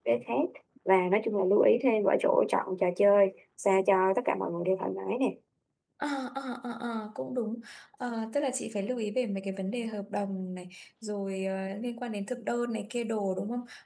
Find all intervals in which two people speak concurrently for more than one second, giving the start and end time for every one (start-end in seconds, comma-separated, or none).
none